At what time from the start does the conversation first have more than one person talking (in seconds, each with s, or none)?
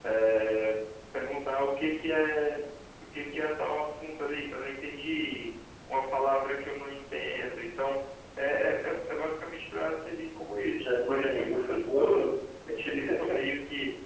10.8 s